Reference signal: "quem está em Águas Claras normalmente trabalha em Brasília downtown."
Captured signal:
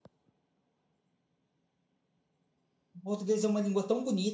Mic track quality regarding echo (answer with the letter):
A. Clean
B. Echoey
A